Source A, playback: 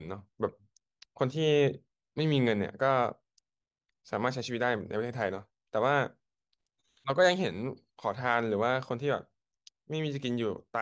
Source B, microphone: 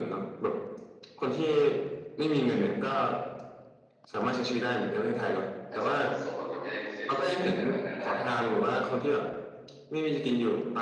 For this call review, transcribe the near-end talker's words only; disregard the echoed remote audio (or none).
อาจจะส่งผลทำให้เสียชีวิตในภายภาคหน้าได้เพราะว่าแบบ